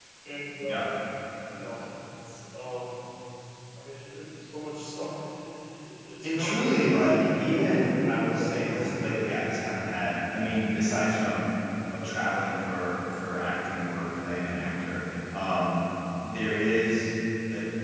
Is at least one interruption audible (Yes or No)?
Yes